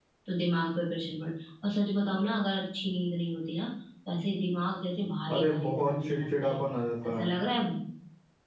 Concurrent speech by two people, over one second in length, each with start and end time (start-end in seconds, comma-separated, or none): 5.3-6.6